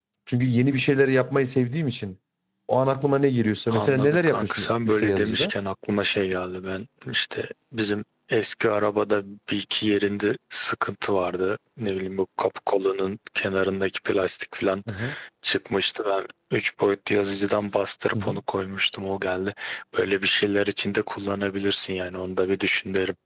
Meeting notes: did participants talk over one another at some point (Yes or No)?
Yes